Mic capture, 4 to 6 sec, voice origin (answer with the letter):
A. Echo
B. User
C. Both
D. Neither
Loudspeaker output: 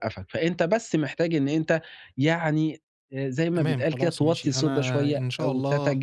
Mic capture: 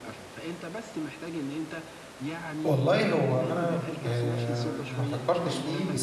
C